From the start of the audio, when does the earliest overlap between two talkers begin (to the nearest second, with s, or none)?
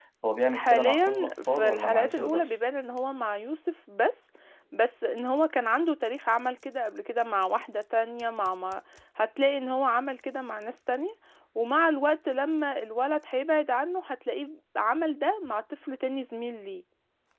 1 s